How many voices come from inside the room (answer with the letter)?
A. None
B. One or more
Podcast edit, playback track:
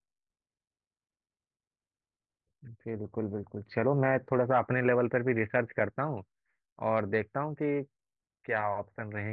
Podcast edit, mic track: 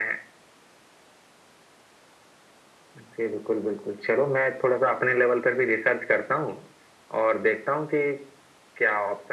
A